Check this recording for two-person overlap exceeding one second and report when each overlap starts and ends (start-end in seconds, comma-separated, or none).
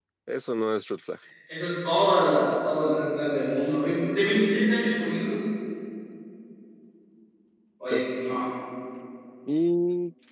none